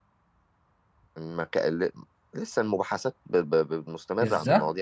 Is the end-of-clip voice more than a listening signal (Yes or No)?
Yes